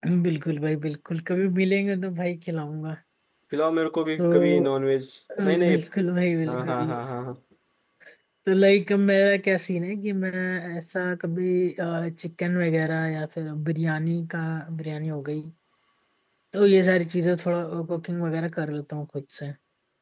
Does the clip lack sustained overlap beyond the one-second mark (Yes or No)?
Yes